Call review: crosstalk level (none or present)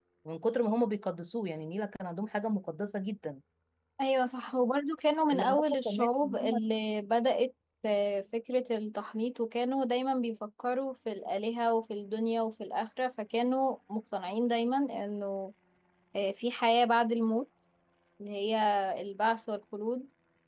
present